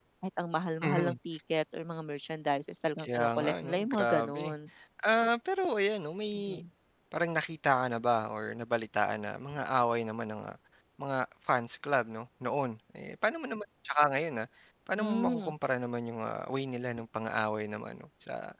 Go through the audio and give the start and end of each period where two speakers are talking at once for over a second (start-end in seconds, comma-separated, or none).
3.0-4.4